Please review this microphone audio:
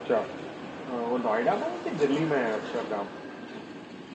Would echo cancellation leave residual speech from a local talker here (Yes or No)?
Yes